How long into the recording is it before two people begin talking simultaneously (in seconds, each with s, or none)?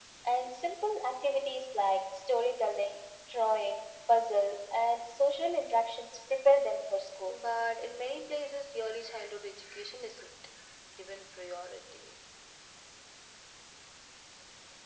none